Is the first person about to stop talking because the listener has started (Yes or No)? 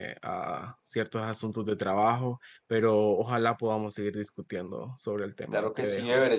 Yes